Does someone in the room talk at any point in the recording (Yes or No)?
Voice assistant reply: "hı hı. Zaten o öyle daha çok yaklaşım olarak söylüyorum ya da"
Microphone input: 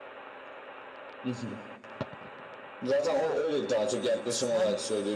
Yes